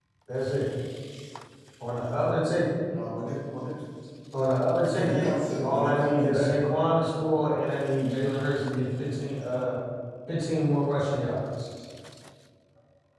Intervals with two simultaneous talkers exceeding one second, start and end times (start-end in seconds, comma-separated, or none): 4.9-6.5